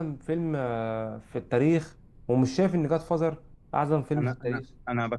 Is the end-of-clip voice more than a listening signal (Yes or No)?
Yes